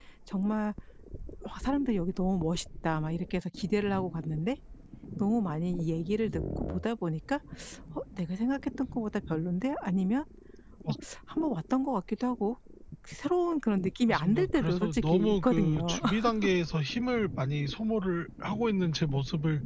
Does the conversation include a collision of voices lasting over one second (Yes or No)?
Yes